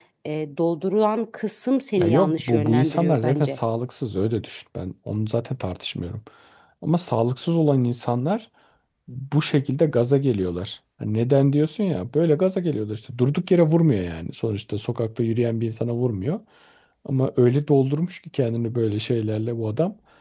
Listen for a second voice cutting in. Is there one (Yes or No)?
Yes